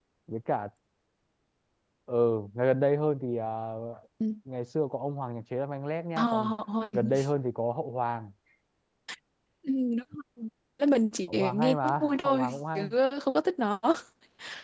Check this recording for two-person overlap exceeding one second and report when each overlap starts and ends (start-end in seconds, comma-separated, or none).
11.3-12.9